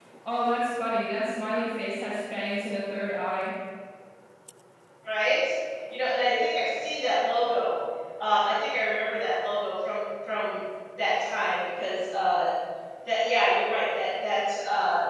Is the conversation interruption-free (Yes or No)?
Yes